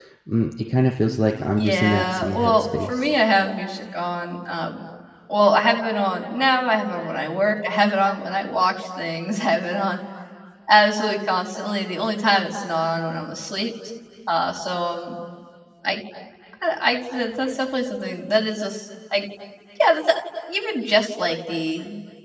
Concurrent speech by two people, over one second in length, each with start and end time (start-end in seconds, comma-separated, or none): 1.6-3.1